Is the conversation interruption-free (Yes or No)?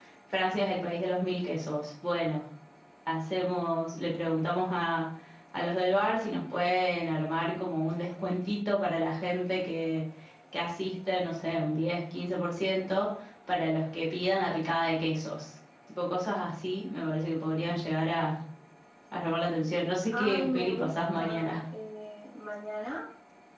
No